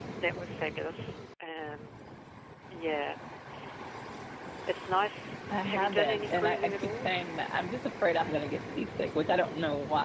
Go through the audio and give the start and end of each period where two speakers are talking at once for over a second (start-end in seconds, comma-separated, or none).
5.7-7.1